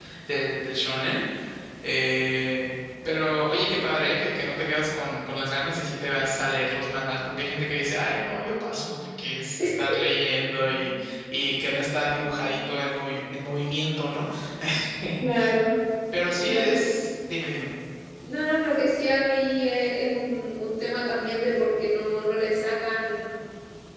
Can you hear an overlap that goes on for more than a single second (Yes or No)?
No